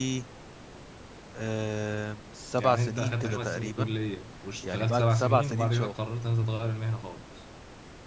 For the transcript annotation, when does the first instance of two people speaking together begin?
2.6 s

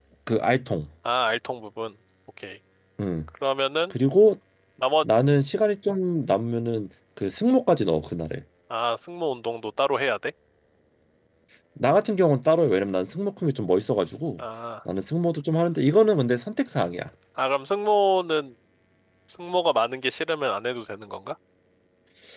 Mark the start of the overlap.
none

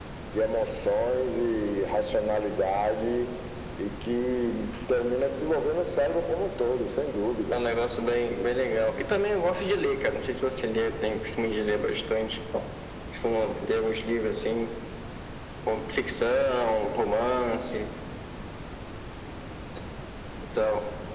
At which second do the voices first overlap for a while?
none

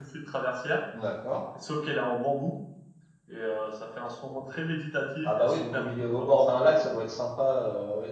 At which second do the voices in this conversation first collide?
5.2 s

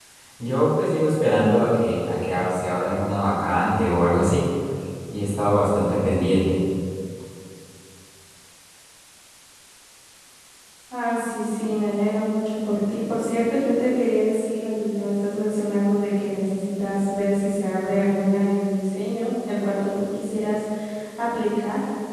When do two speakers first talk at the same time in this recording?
none

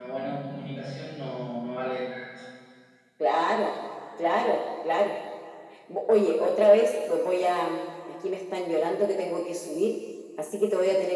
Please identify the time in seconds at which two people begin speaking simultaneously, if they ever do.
none

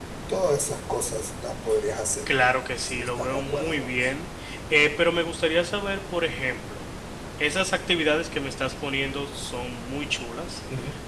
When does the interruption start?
2.8 s

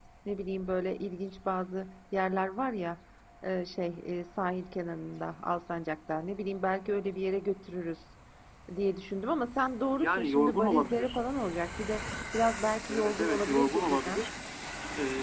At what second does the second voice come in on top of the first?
9.9 s

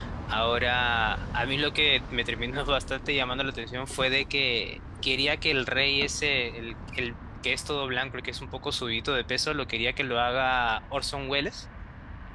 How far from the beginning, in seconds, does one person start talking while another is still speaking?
none

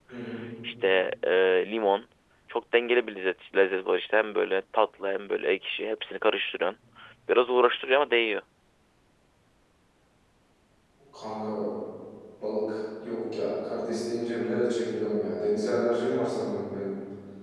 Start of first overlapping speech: none

